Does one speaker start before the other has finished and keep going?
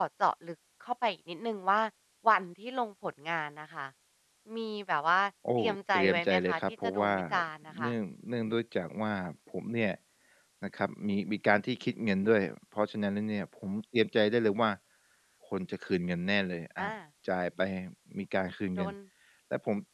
Yes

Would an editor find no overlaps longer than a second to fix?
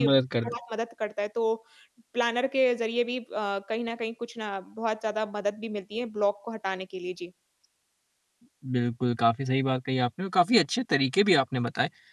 Yes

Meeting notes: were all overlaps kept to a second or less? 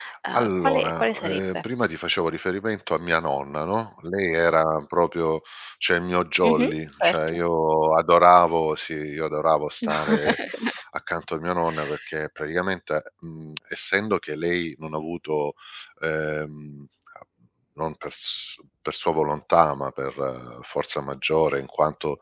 No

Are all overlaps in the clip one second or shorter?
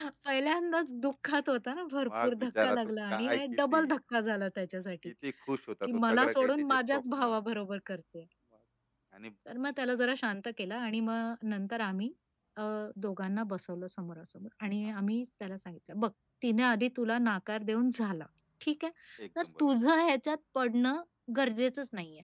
No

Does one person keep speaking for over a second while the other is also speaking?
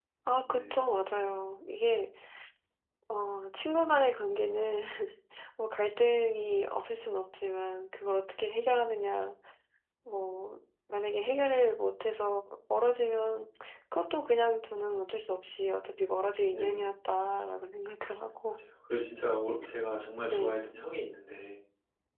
No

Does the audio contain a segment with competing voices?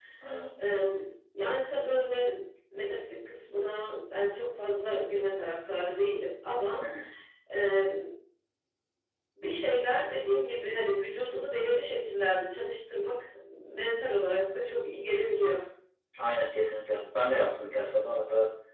No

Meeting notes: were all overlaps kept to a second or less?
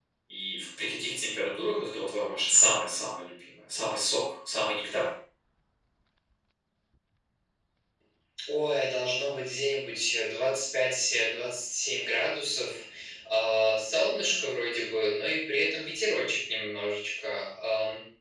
Yes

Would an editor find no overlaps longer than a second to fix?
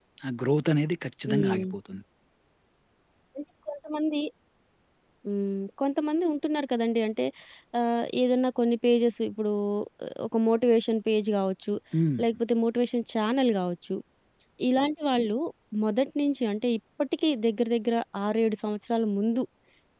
Yes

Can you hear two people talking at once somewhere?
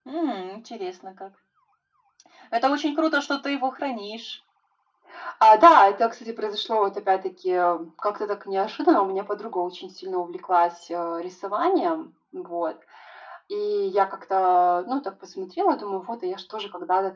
No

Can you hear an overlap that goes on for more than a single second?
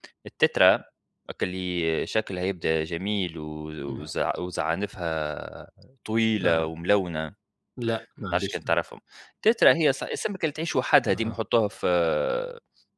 No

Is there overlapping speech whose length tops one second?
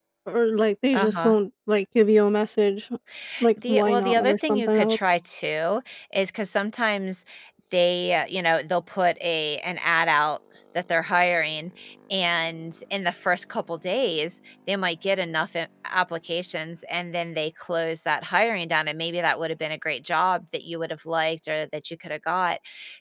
Yes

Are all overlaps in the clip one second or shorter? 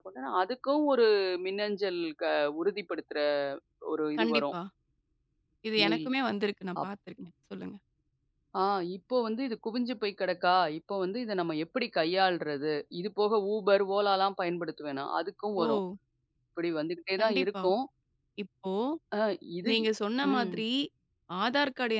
Yes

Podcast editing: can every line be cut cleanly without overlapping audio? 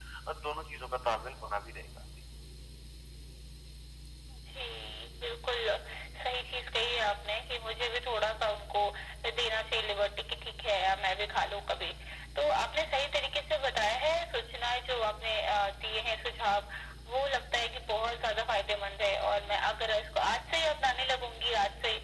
Yes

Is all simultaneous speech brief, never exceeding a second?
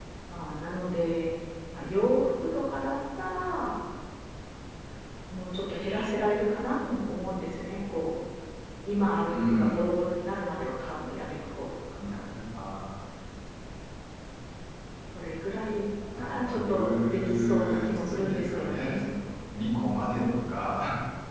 No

